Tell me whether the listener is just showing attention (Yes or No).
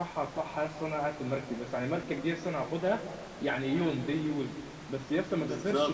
Yes